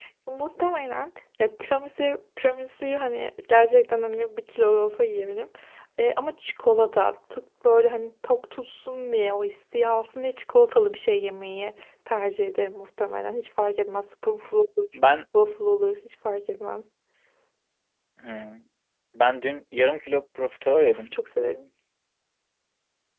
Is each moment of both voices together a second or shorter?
Yes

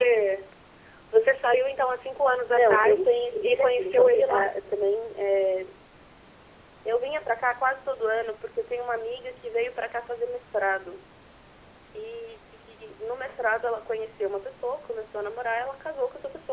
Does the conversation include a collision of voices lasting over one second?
Yes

